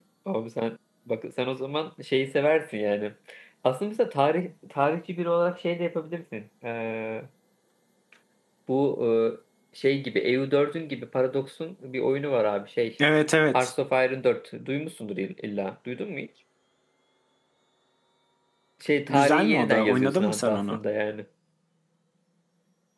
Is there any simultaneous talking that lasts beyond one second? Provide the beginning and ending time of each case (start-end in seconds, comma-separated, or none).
19.1-20.8